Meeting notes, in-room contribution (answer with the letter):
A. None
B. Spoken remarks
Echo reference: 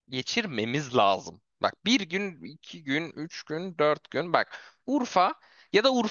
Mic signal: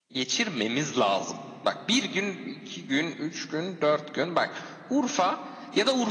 A